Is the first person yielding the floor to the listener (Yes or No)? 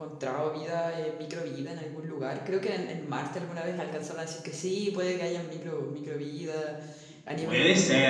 No